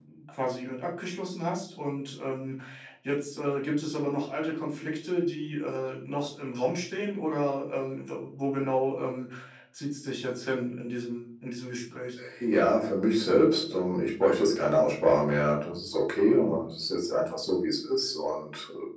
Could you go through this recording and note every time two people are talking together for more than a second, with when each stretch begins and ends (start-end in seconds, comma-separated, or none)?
none